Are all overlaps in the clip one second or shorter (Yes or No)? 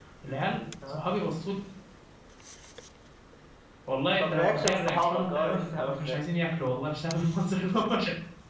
No